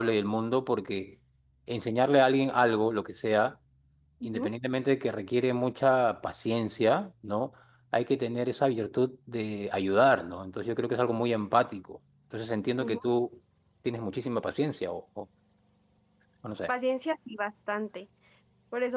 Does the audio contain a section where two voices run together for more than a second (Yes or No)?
No